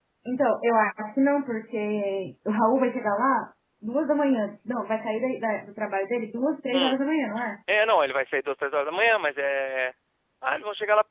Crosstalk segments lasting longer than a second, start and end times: none

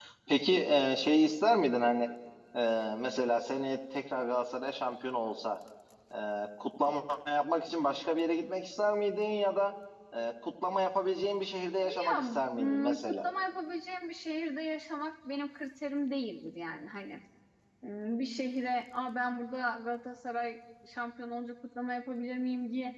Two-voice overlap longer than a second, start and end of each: 11.8-13.3

